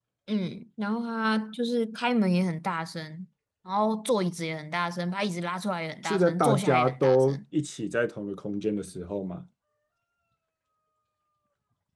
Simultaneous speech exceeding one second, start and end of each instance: 6.0-7.4

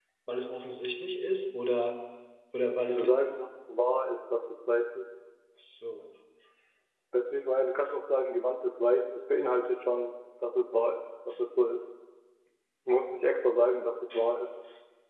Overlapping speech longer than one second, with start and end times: none

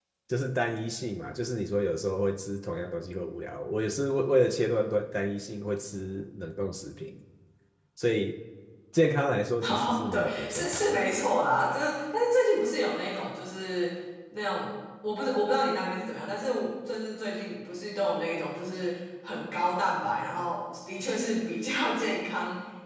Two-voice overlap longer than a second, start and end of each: 9.6-10.9

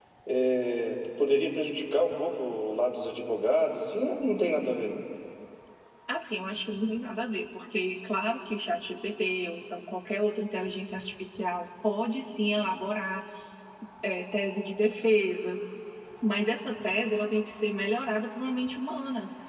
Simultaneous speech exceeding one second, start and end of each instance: none

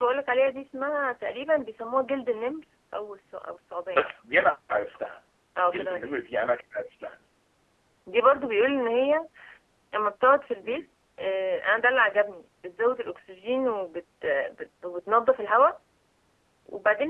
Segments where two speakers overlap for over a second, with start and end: none

